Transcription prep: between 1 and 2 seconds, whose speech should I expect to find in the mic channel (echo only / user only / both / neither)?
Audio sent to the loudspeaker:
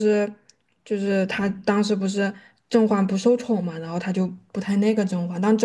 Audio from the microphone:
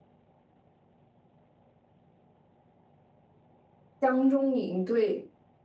neither